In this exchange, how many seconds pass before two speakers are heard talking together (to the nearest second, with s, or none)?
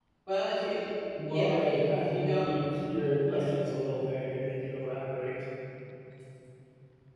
1 s